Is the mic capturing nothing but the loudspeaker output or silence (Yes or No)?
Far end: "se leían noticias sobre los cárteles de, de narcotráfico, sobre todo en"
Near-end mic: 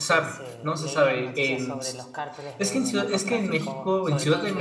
No